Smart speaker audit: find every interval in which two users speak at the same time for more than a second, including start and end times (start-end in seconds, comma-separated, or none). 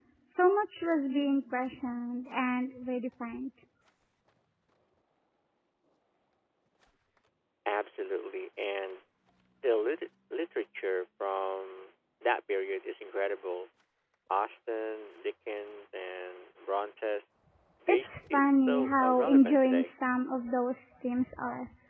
17.9-19.9